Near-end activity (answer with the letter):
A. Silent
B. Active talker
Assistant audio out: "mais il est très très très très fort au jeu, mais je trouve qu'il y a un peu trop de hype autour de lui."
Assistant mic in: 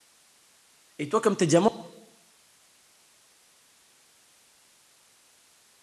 B